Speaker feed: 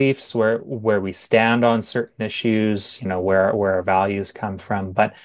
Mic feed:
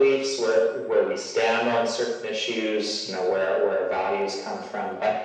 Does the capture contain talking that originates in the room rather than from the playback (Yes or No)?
No